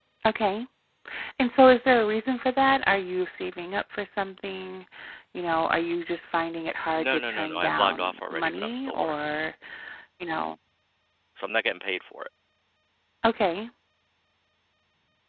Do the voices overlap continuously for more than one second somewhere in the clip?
Yes, from 6.9 s

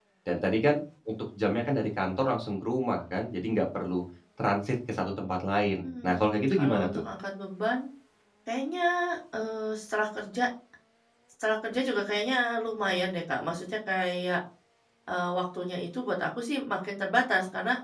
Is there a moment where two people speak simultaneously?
Yes, from 5.8 s

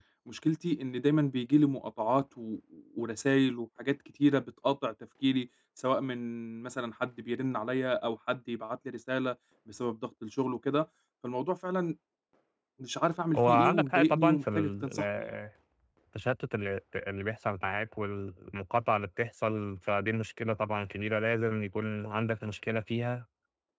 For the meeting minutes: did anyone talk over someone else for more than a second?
Yes, from 13.3 s

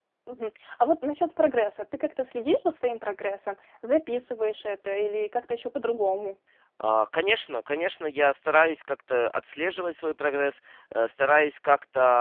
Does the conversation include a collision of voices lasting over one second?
No

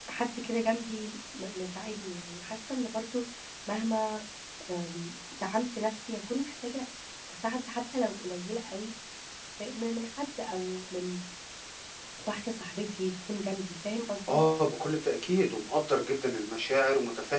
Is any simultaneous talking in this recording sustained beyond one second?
No

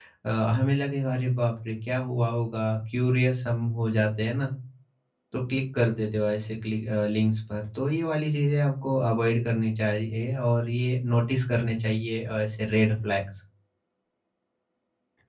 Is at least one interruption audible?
No

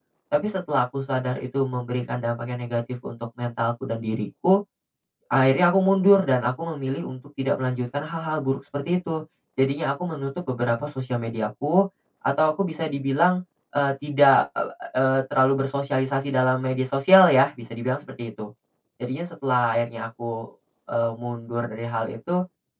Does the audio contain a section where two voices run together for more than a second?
No

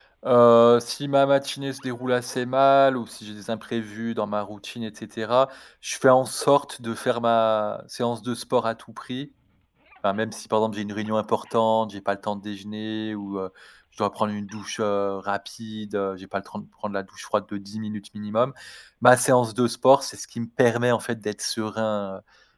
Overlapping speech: No

